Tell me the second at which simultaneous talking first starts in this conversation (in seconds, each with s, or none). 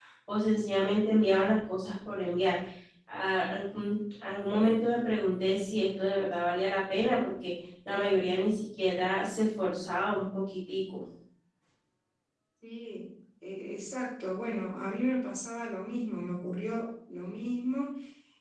none